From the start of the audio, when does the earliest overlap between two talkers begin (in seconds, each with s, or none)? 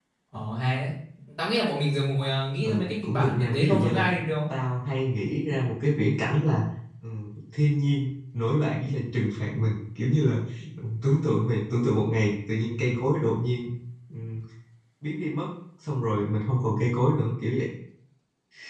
2.6 s